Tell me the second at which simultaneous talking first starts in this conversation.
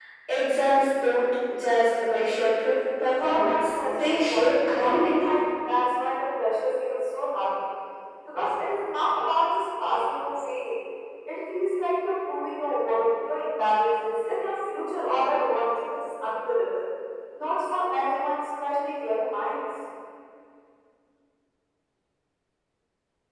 3.2 s

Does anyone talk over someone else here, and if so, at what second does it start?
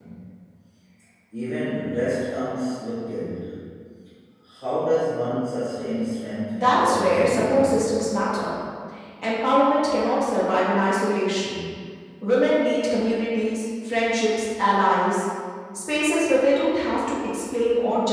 6.5 s

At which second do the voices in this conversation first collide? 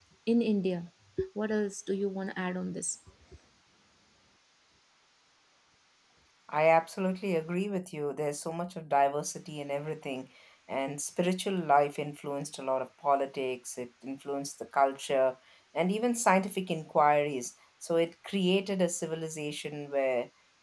none

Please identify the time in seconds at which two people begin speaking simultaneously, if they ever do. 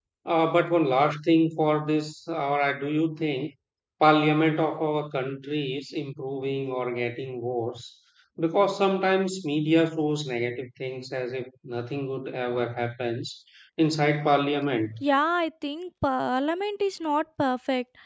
none

